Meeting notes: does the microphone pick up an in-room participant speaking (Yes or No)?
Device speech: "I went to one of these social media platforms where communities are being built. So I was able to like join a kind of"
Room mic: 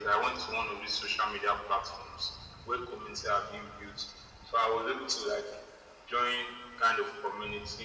No